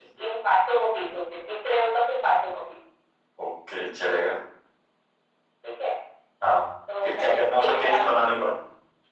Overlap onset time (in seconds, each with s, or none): 7.0 s